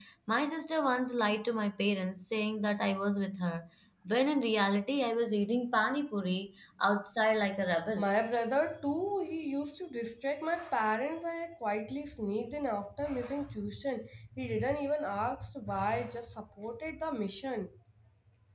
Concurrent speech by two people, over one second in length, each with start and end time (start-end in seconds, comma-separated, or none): none